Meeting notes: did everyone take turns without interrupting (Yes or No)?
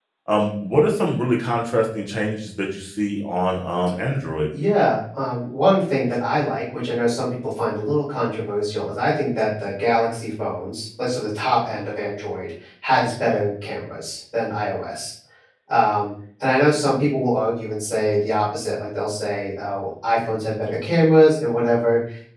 Yes